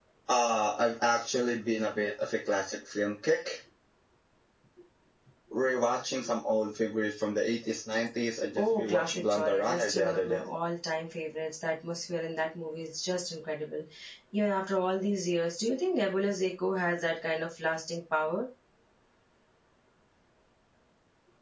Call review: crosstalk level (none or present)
present